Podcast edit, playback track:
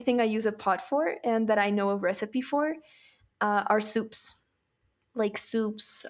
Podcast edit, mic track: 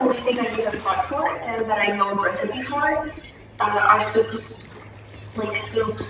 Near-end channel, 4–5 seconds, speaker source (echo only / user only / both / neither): echo only